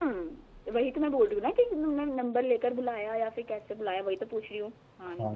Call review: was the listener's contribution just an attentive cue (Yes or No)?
No